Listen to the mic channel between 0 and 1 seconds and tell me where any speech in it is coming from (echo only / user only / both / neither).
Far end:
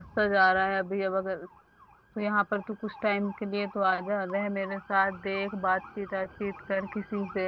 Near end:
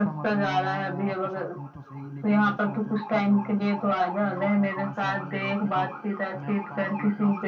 both